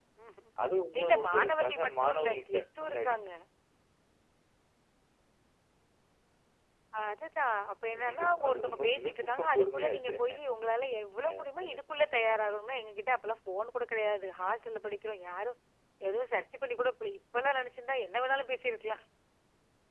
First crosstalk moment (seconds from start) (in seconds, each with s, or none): 1.0 s